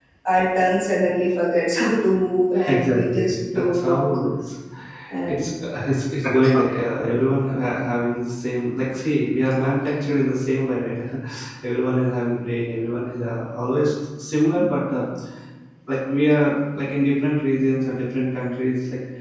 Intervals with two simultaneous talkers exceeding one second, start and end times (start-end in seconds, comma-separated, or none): 2.7-4.1